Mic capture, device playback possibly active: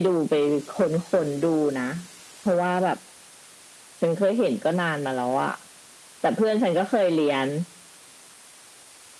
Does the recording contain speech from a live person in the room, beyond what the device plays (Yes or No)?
No